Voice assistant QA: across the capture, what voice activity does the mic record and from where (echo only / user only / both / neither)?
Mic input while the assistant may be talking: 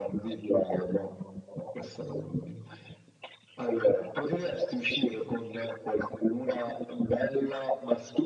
echo only